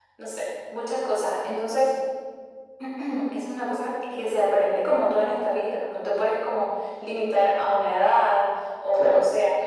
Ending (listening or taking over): listening